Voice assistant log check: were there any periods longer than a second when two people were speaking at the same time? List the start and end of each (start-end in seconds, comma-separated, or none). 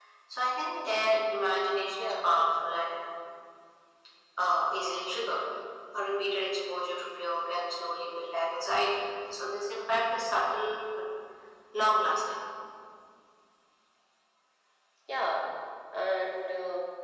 none